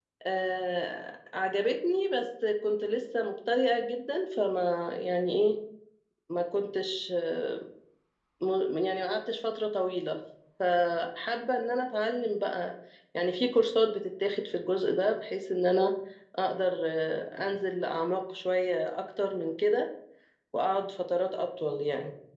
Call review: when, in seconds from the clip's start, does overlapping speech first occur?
none

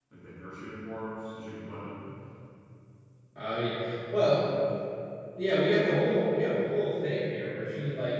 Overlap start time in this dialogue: none

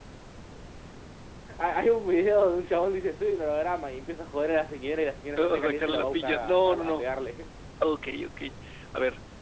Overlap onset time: 5.4 s

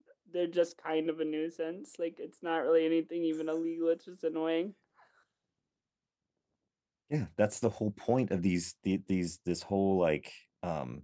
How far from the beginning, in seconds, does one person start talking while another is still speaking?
none

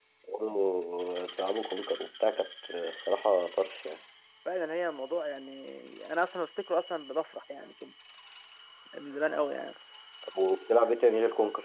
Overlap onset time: none

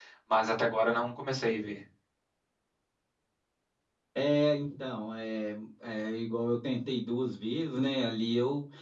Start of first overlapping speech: none

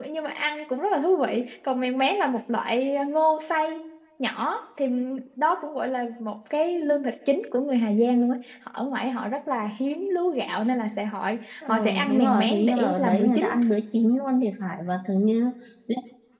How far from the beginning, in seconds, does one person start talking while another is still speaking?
11.7 s

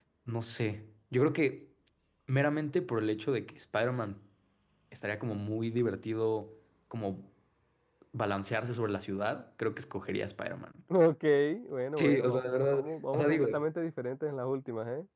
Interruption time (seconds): 12.0 s

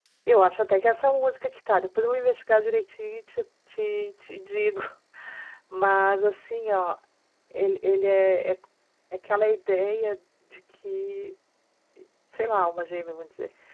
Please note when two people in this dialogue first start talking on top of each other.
none

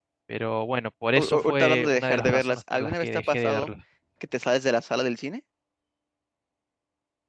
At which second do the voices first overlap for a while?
1.2 s

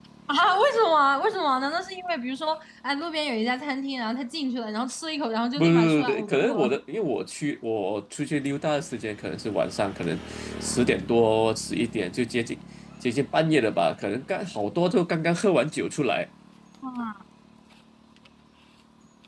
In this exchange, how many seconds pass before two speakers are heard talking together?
5.6 s

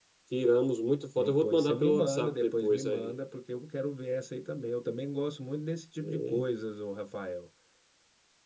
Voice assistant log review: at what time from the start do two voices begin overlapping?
1.2 s

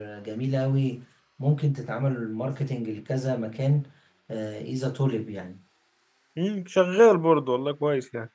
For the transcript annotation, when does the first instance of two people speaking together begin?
none

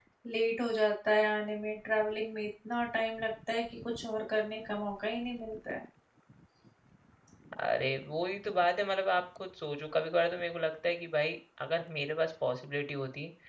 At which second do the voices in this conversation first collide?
none

